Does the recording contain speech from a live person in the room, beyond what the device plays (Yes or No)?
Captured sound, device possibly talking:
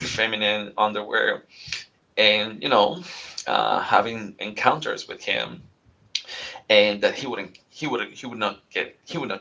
Yes